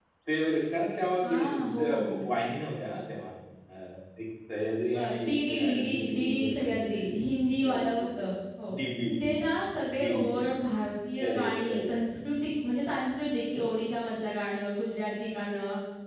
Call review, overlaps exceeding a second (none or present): present